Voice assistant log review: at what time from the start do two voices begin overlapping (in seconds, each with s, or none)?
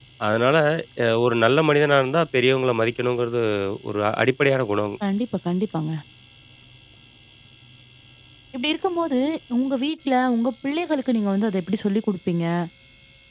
none